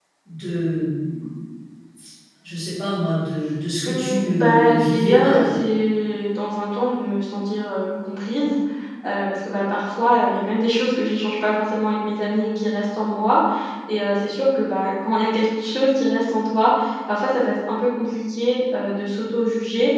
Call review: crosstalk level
present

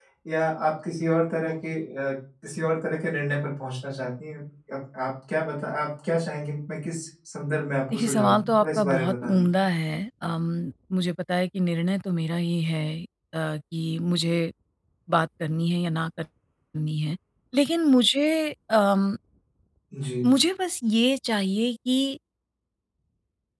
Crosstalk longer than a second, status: present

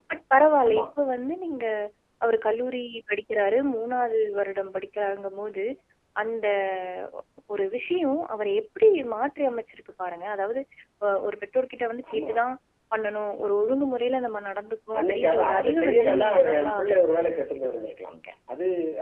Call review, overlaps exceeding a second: present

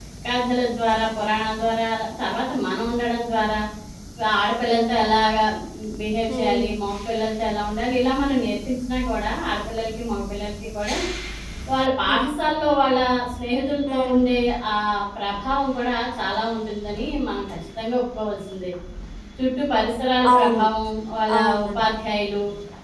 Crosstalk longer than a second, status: none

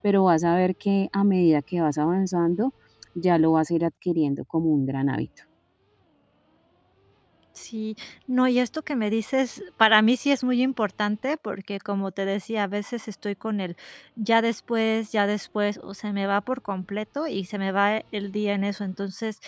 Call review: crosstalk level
none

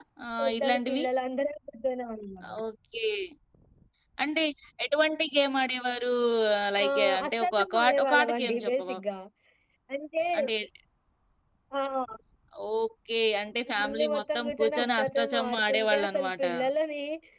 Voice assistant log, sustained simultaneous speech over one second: present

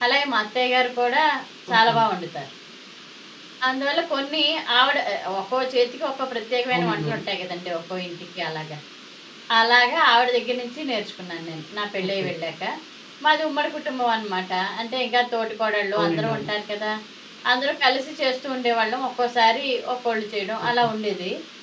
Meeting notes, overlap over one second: none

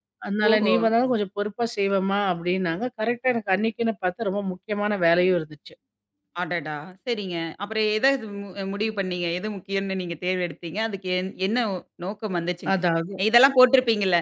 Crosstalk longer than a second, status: none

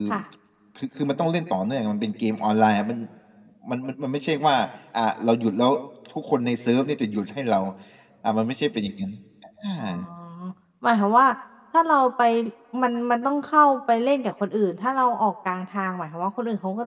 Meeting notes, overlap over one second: none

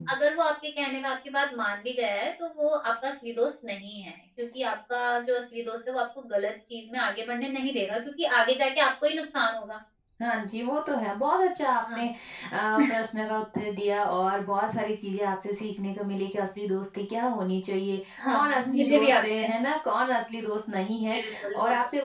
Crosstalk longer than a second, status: present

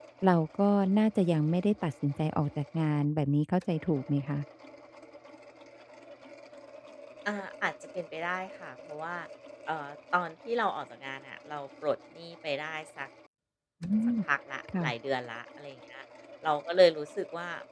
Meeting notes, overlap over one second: none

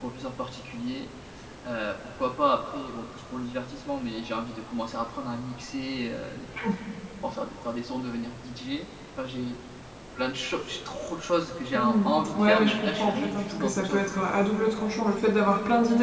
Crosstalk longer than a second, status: present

